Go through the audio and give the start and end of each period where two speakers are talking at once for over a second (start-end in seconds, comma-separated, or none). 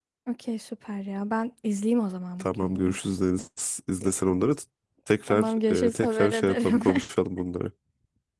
5.3-6.8